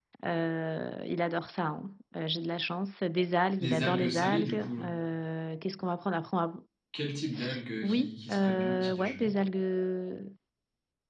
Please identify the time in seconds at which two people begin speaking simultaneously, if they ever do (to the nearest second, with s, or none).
4 s